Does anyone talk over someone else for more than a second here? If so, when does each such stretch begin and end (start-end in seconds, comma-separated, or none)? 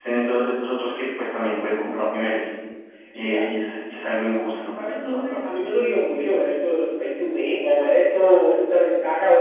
none